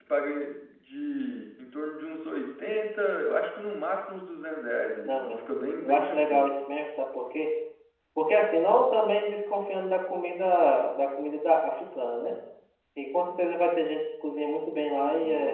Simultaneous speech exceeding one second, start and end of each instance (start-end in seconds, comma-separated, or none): 5.0-6.5